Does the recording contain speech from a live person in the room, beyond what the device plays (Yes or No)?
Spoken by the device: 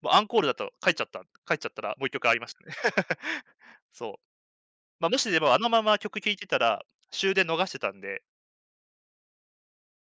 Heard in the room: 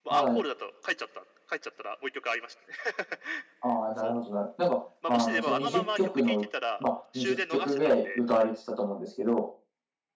Yes